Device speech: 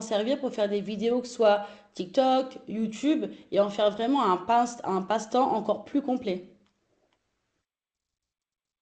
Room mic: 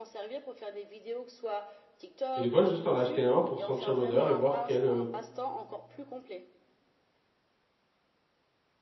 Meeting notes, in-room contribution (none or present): present